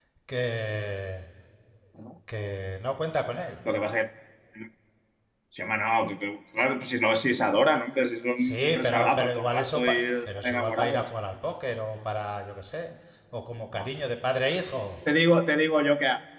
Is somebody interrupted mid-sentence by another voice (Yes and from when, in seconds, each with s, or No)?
Yes, from 8.4 s